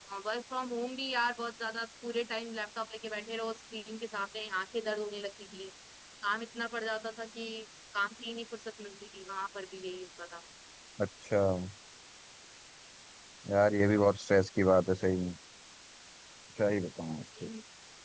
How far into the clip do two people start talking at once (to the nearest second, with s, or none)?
none